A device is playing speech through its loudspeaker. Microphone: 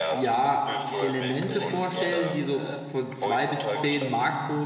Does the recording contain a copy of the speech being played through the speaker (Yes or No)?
Yes